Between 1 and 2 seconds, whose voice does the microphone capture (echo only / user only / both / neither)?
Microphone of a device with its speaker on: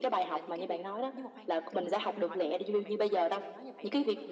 both